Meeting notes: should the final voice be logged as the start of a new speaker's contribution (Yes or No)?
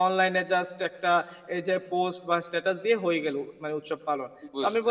No